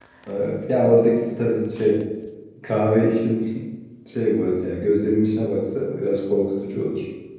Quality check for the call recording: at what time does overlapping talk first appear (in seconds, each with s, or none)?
none